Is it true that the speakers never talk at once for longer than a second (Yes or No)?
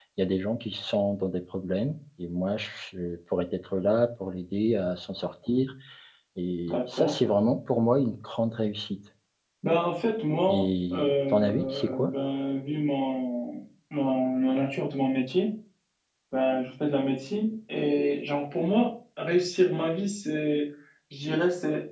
No